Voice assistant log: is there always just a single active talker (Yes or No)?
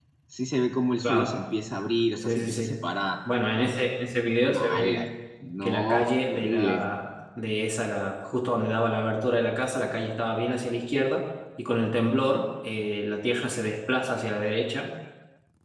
No